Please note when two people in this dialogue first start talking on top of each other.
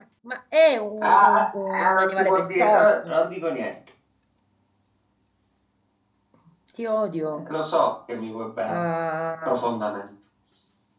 1.0 s

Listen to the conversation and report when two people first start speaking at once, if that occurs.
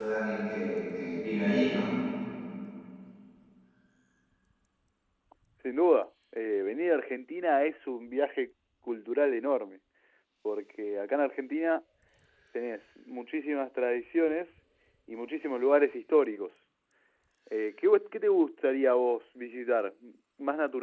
none

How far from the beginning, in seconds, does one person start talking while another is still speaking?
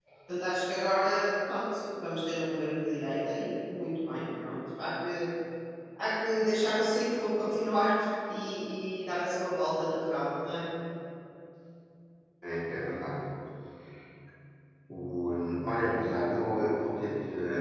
none

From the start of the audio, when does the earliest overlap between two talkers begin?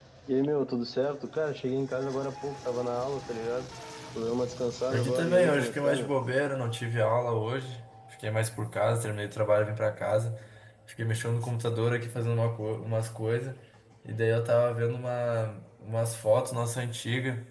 4.9 s

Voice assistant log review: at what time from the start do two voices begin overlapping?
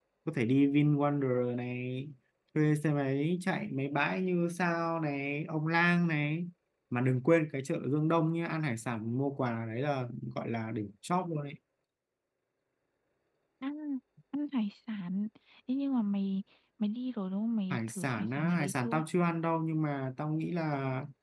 17.7 s

